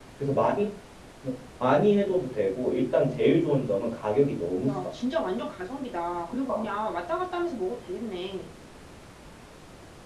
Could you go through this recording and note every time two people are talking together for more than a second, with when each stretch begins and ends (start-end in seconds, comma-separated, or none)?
none